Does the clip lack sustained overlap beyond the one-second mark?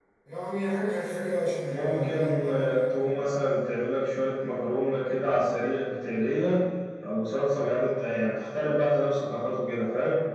No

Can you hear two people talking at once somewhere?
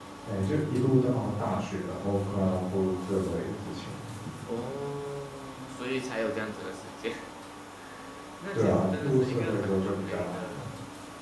Yes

